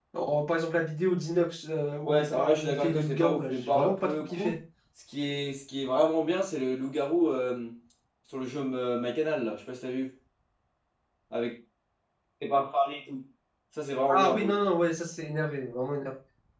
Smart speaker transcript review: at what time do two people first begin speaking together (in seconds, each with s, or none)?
2.0 s